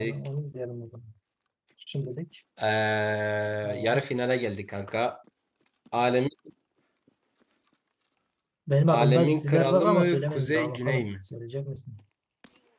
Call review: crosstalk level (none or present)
present